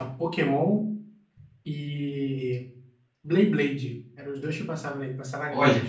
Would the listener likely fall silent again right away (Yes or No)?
No